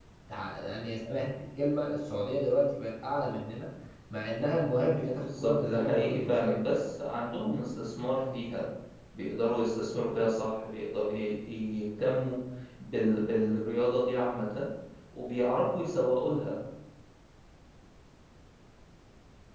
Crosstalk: present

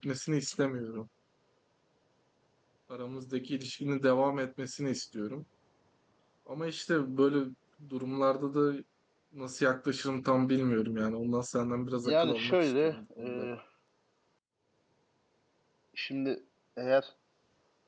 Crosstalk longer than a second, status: present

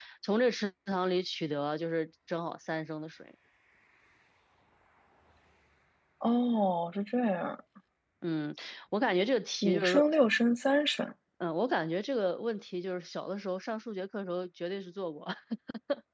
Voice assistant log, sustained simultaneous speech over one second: none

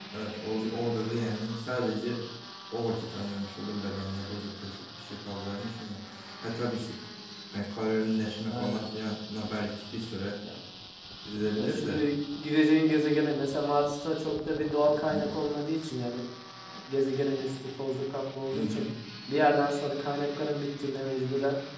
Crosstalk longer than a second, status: none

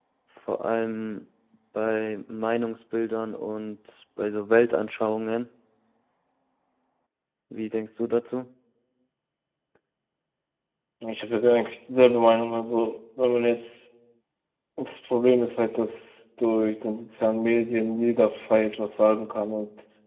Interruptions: none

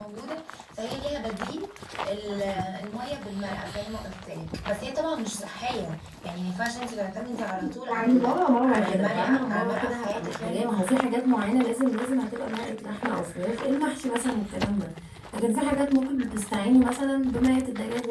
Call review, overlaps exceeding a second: present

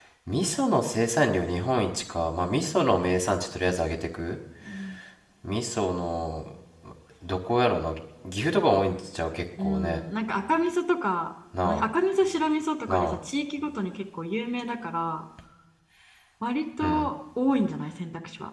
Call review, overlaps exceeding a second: none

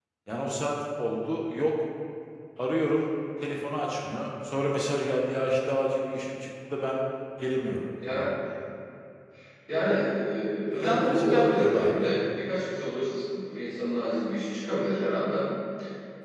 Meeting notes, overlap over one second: present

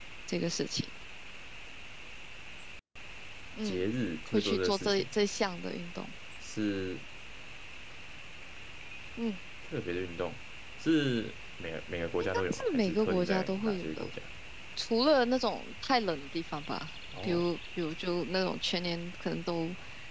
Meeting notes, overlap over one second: present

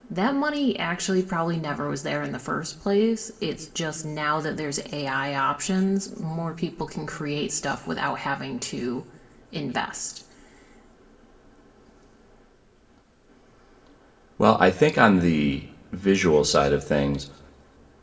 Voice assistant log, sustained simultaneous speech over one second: none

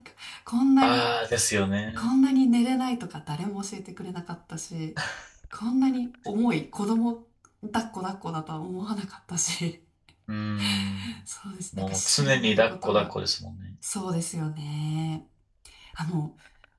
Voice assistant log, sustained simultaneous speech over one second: present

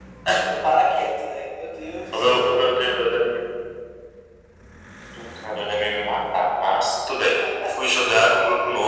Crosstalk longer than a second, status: none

